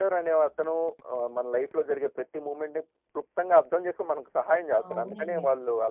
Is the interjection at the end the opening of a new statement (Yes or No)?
Yes